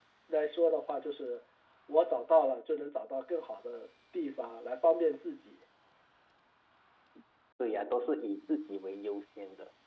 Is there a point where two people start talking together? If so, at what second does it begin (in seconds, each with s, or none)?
none